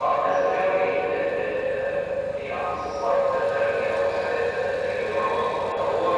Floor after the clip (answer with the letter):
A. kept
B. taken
B